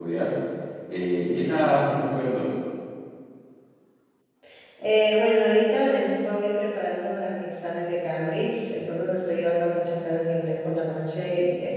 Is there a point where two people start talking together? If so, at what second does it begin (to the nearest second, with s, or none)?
none